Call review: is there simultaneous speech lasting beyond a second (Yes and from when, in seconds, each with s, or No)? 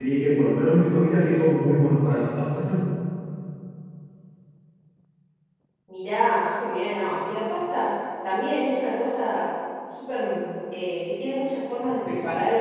No